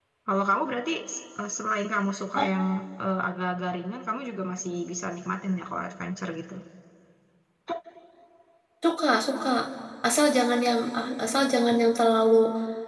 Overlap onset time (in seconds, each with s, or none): none